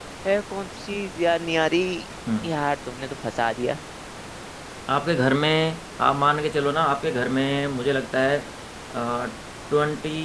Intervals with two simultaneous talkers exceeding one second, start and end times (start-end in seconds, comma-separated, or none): none